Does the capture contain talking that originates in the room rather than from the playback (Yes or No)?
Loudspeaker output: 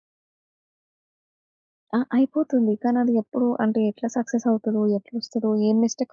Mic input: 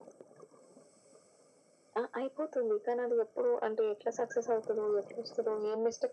No